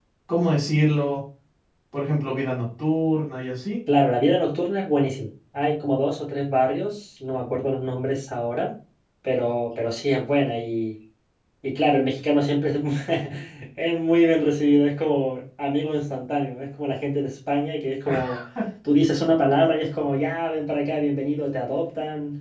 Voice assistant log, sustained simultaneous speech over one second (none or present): none